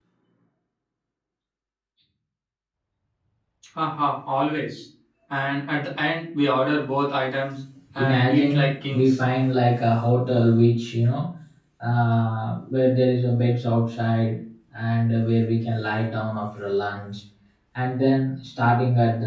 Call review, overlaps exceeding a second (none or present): present